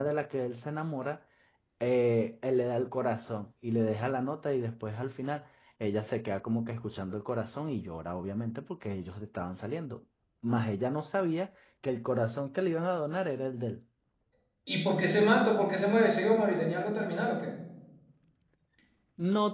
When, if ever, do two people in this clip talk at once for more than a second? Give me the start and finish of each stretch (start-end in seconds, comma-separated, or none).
none